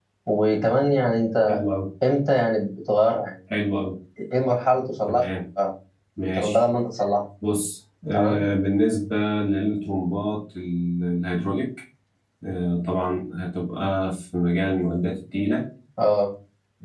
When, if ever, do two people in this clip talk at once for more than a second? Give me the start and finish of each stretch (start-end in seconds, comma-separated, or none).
none